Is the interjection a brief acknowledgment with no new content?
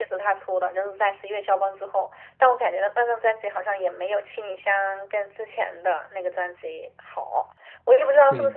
Yes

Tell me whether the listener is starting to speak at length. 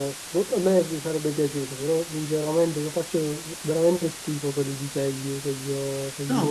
Yes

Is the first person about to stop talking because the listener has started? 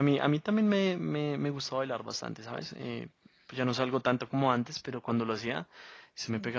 No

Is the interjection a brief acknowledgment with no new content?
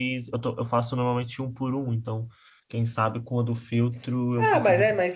No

